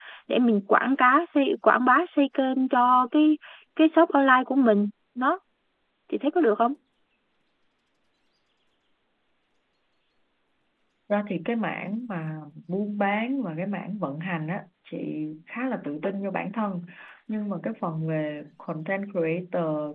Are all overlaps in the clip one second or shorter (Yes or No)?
Yes